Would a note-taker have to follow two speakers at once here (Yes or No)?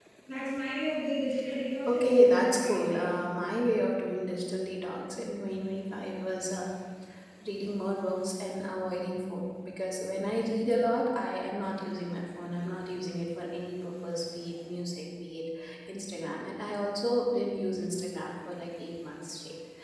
Yes